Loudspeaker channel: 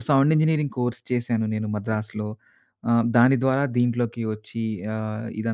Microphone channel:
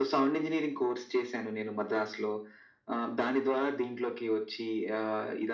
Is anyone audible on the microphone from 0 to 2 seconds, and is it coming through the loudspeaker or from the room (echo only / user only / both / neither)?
echo only